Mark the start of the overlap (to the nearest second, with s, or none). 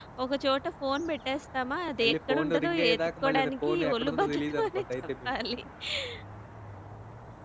2 s